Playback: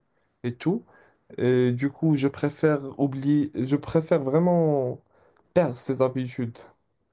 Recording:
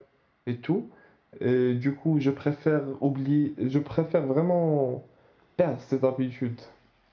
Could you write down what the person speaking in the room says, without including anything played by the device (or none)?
none